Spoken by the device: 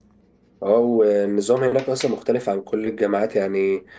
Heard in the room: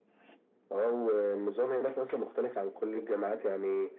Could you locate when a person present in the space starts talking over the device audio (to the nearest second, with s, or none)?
none